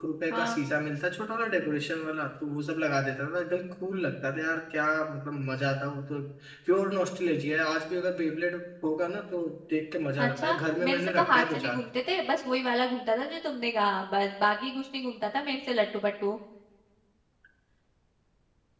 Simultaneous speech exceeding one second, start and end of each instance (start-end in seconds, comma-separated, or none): 10.2-11.8